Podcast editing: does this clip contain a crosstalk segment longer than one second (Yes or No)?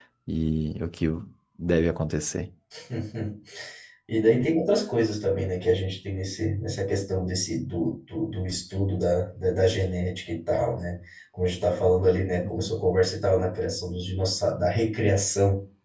No